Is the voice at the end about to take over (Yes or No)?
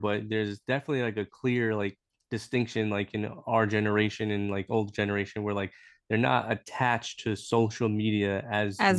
No